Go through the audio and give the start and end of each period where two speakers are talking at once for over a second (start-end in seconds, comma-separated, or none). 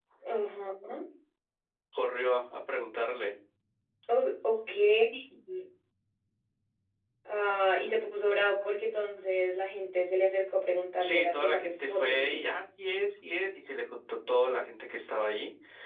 11.0-12.5